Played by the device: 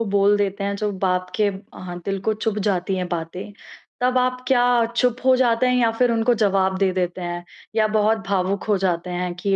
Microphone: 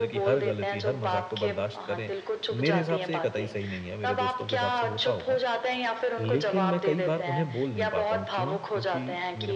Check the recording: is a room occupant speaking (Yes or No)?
Yes